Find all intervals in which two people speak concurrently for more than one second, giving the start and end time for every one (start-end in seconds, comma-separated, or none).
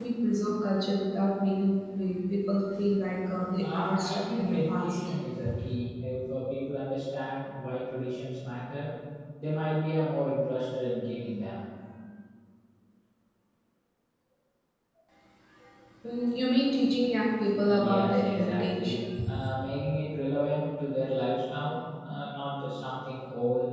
3.6-5.0, 17.7-19.0